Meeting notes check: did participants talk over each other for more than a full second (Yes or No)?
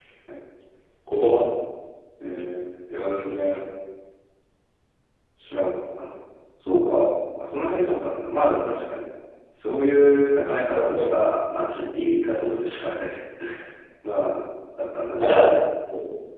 No